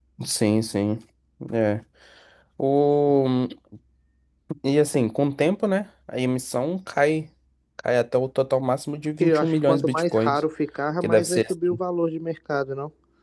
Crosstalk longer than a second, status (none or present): present